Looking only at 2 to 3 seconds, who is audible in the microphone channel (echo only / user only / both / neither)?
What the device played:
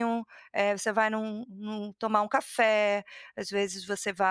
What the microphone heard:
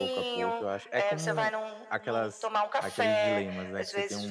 both